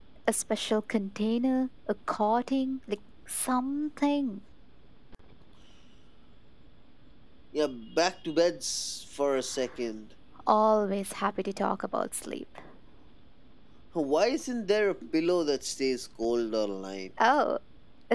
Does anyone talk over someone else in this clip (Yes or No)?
No